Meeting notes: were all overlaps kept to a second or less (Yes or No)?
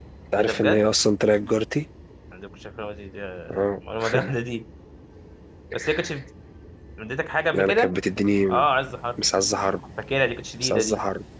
Yes